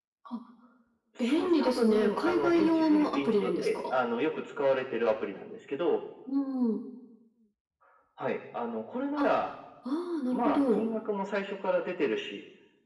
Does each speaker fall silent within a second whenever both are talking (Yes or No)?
No